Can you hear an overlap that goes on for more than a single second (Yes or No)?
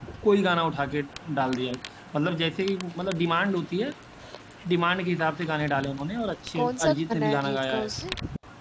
Yes